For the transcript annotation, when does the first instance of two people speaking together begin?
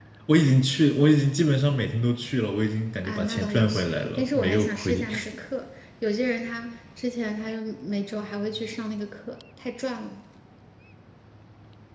3.0 s

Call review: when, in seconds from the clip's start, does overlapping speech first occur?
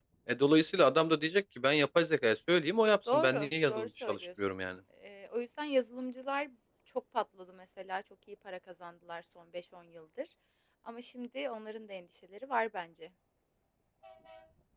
3.1 s

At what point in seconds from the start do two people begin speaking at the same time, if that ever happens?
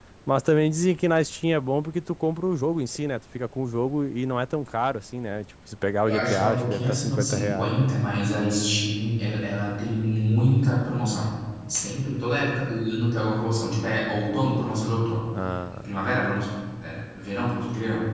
6.1 s

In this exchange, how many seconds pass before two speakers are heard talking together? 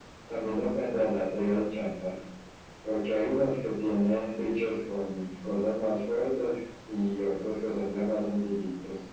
none

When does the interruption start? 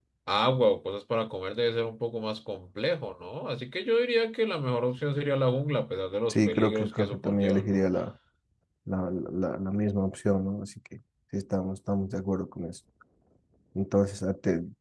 6.3 s

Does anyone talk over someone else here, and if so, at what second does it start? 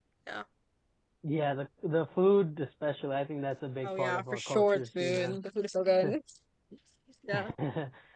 3.8 s

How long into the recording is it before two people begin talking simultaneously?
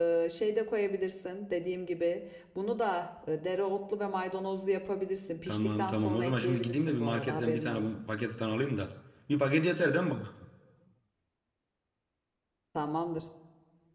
5.5 s

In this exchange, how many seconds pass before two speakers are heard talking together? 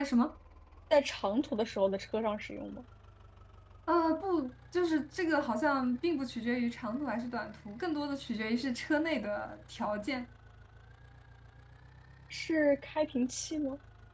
none

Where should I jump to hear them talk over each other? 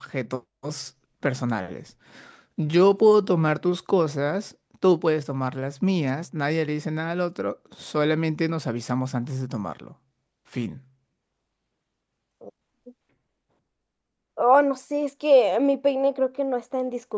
none

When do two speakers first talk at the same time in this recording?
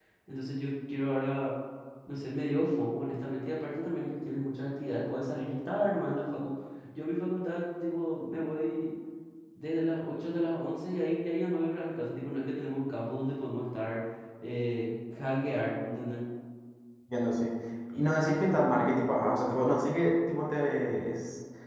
none

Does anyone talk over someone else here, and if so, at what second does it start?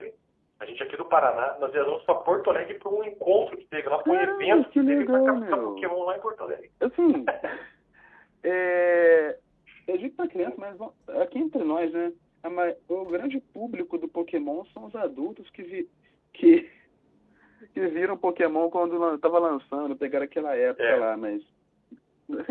4.0 s

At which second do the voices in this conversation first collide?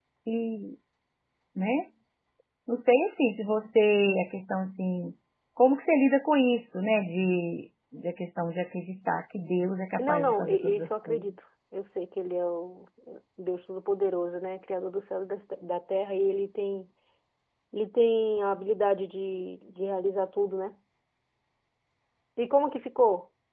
10.0 s

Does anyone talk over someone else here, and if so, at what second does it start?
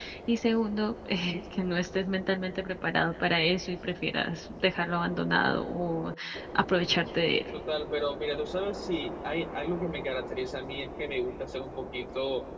none

